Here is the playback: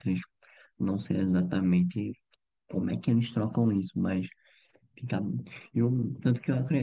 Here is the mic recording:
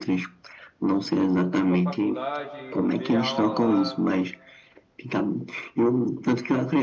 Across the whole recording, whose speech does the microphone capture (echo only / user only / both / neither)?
both